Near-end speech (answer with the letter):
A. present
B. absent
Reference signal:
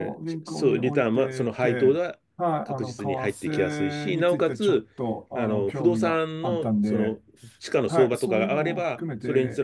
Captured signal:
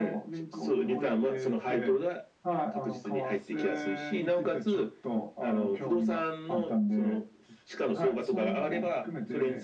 B